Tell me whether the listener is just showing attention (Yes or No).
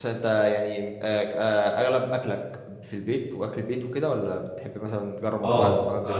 No